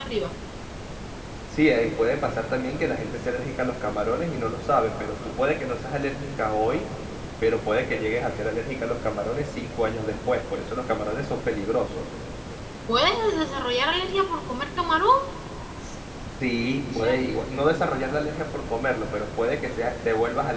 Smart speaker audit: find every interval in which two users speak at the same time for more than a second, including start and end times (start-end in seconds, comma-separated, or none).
none